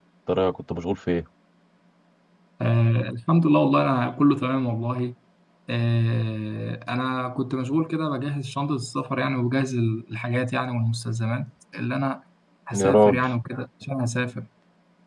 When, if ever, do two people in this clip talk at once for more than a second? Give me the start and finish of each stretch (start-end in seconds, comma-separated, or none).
none